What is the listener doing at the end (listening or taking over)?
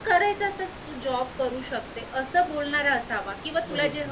listening